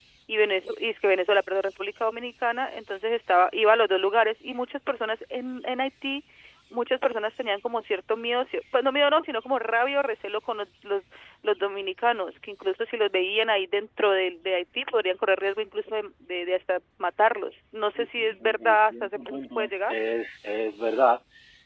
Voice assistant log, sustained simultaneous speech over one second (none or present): present